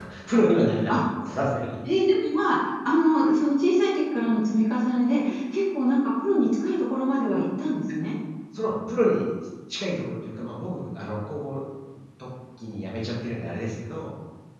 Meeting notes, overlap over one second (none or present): none